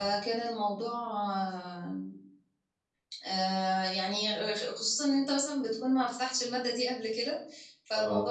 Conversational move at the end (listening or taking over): listening